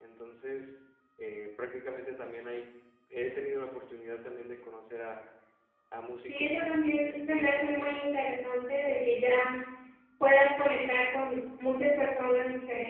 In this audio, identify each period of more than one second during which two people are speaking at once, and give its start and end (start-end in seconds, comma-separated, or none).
6.3-8.3